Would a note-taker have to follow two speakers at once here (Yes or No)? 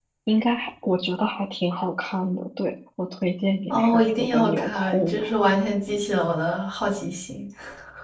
Yes